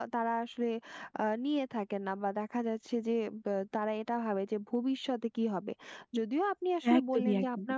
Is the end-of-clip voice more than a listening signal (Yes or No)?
No